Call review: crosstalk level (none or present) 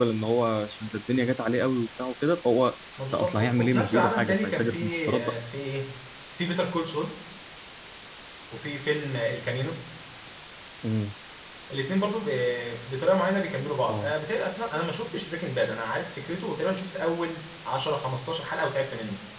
present